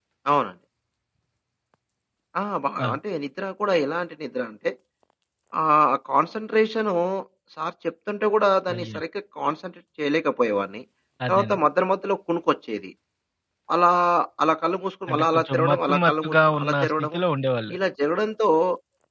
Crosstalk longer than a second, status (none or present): present